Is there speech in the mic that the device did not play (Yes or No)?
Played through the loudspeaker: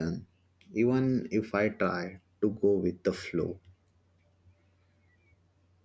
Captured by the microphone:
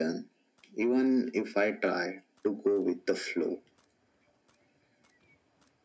No